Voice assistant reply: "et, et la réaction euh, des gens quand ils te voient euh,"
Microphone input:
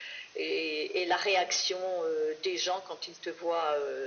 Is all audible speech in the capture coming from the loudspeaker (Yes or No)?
Yes